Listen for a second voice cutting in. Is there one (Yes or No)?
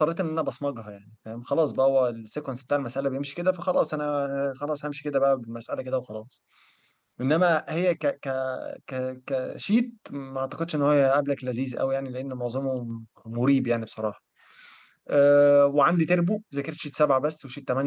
No